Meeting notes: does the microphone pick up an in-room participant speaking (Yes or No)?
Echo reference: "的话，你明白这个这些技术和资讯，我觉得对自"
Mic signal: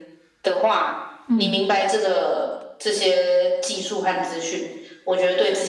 Yes